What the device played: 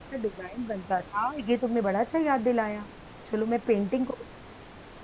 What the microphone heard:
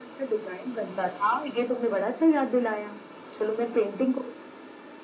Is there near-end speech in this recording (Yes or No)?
No